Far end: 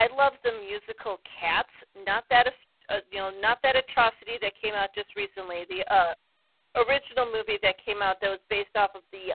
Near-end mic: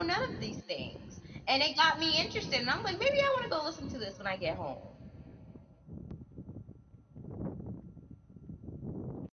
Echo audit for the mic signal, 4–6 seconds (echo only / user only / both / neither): user only